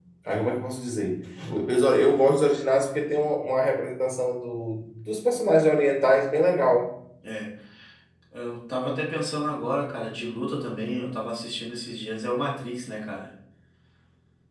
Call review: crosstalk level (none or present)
none